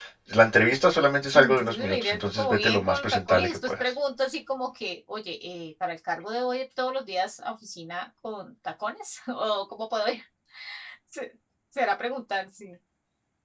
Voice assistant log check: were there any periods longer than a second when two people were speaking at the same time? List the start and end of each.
1.4-3.8

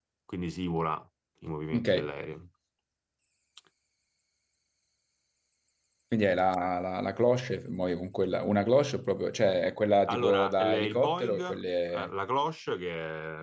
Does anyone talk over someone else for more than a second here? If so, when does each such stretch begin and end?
10.1-11.4

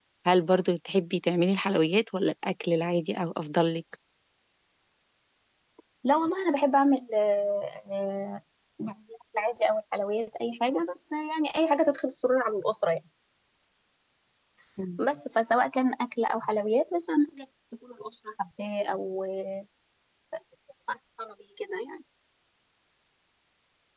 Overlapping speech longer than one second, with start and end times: none

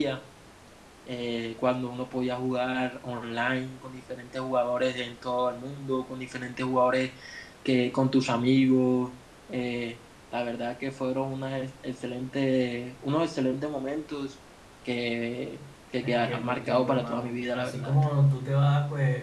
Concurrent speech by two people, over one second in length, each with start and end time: 16.0-17.9

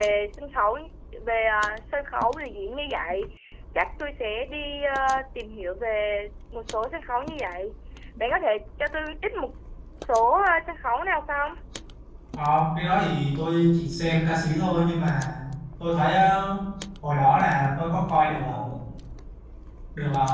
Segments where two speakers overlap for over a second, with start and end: none

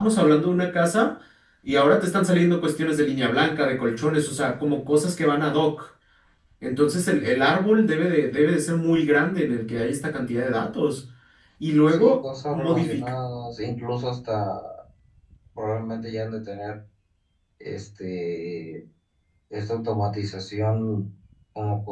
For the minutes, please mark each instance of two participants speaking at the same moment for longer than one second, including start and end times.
11.9-13.1

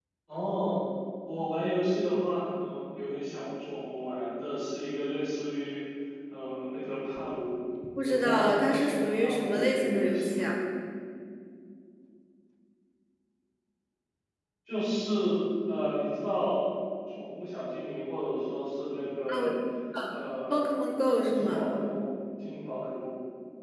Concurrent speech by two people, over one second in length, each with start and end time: 8.0-10.5

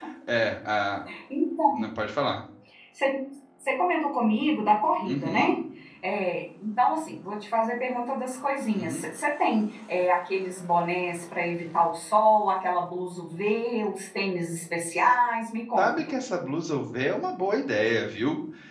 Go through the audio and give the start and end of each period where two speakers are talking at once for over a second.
none

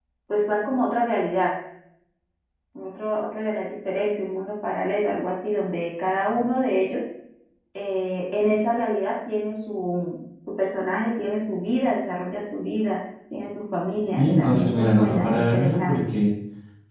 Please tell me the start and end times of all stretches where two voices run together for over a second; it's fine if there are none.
14.2-16.0

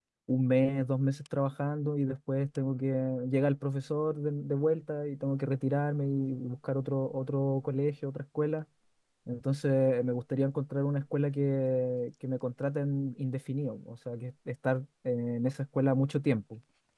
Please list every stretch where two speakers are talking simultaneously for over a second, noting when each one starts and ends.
none

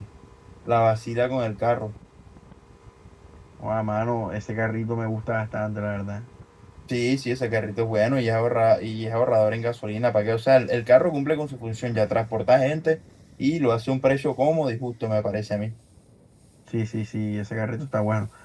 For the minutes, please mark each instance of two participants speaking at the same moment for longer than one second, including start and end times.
none

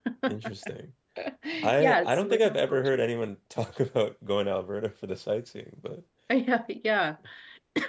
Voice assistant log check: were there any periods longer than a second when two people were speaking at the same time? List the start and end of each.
1.8-3.0

